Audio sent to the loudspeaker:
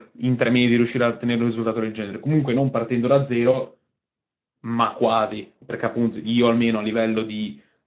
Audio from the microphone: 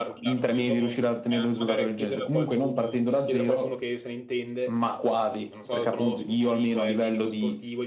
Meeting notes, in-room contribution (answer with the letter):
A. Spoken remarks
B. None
A